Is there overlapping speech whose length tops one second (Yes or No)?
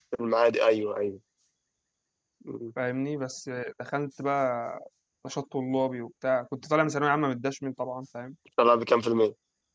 No